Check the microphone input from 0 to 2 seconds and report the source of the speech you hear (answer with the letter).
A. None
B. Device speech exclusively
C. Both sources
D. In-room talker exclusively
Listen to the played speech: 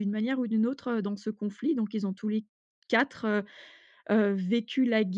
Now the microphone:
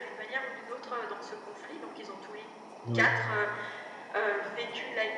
B